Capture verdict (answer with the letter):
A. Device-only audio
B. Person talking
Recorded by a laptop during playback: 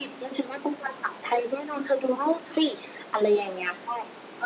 A